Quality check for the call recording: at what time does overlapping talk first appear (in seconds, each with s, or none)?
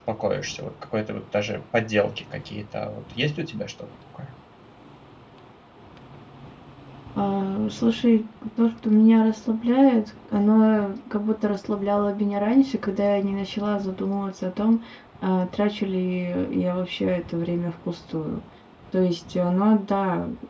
none